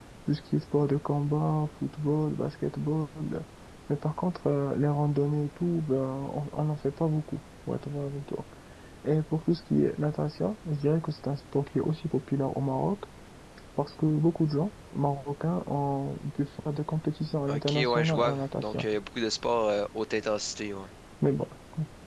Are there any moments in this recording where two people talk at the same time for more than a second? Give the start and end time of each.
17.5-18.8

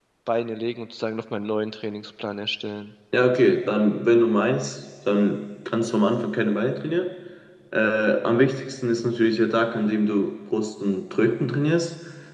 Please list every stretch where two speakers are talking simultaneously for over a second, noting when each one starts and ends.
none

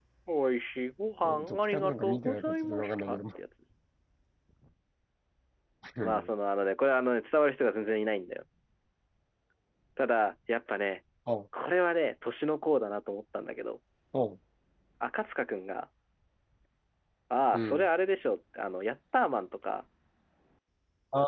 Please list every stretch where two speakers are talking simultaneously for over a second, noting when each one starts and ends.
1.2-3.2

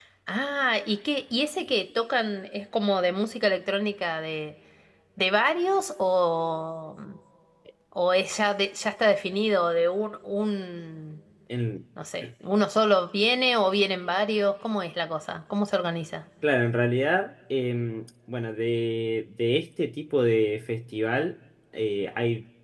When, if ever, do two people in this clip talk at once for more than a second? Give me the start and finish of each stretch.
none

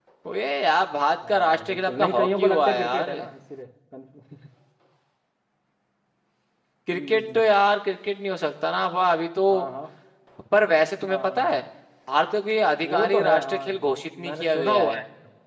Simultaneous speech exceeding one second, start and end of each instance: 1.3-3.1, 12.8-15.0

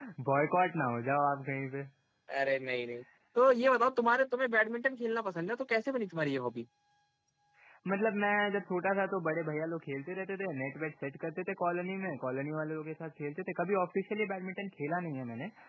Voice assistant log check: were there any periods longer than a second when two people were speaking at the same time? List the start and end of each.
none

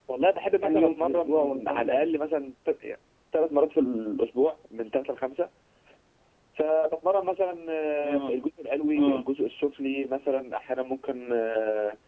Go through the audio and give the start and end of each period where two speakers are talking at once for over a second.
0.6-2.1

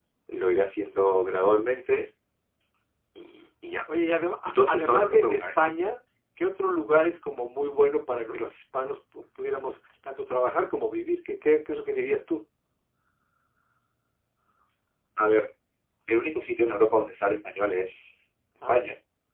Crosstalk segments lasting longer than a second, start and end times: 4.4-5.7

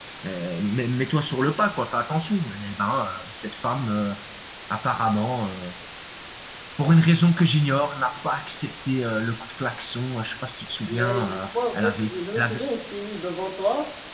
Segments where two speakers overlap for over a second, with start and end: 10.9-12.6

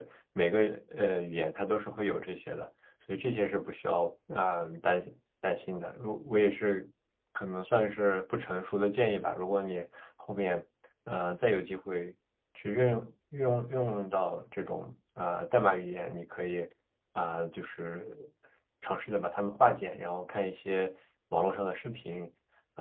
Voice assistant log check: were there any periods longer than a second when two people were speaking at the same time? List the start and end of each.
none

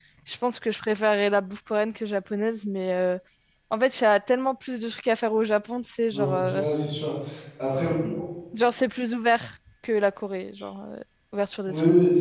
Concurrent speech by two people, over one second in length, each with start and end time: none

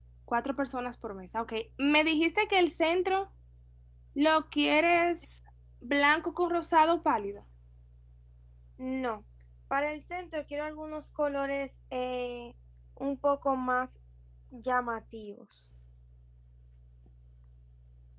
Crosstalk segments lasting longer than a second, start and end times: none

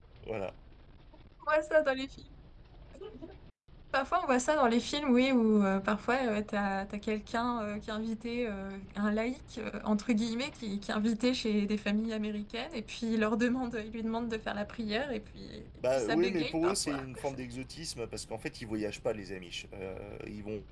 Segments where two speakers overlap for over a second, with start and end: 15.9-17.2

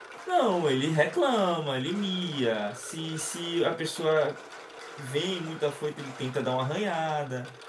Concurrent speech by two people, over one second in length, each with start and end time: none

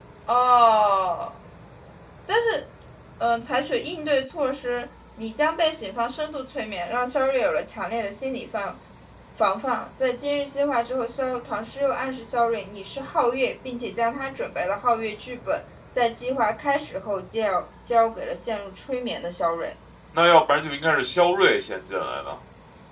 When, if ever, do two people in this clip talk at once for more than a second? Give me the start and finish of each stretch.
none

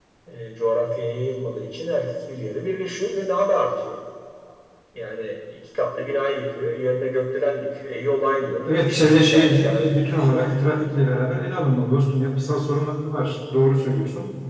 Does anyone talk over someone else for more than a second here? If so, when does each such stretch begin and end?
8.8-10.3

